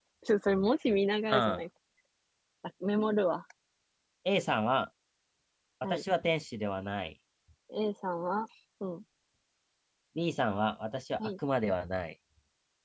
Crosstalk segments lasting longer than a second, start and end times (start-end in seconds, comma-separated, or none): none